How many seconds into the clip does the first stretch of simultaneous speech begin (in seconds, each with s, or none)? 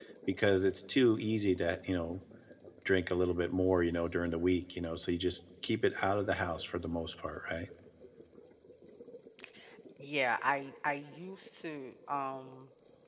none